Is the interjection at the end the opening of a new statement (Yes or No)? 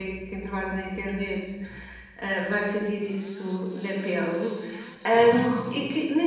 No